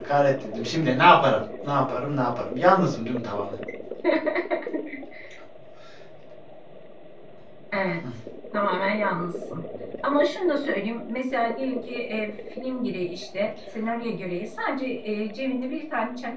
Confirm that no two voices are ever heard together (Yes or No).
Yes